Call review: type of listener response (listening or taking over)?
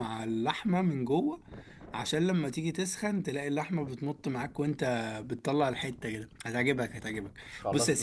taking over